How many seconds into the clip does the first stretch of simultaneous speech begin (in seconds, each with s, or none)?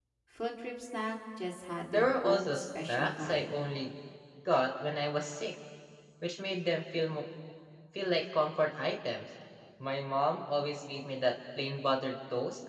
1.9 s